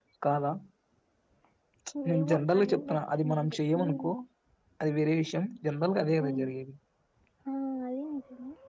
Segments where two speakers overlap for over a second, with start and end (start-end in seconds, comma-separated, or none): 2.2-4.1